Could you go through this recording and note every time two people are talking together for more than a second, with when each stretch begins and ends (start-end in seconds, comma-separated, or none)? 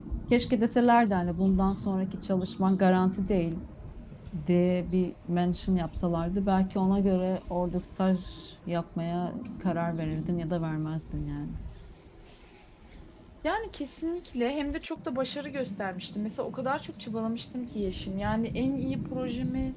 none